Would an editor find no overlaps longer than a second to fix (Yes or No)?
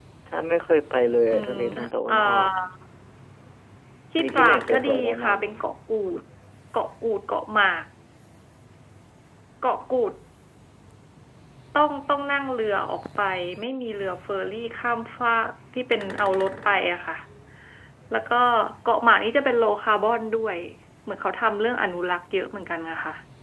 No